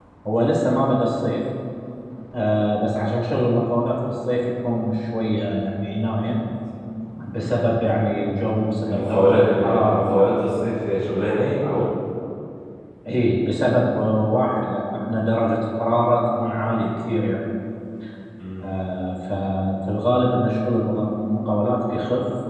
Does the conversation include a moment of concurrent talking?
Yes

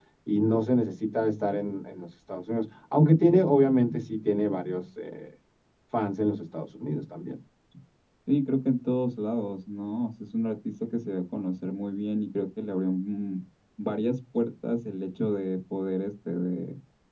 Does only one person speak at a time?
Yes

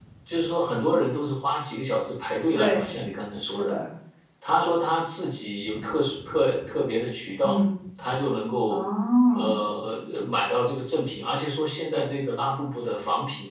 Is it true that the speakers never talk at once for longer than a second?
Yes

